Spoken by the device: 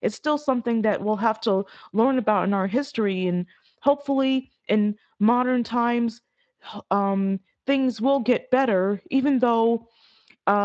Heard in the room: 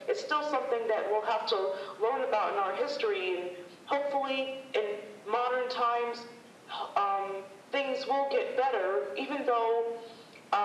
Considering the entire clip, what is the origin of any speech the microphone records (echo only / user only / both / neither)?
echo only